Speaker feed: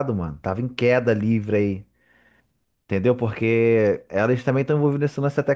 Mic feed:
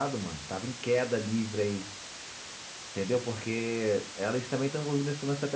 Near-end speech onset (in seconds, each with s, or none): none